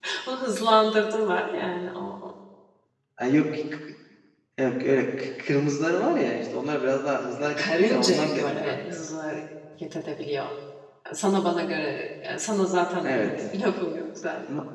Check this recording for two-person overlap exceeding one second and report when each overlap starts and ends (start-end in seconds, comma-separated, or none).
7.6-8.8